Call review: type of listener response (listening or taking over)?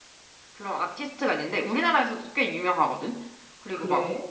listening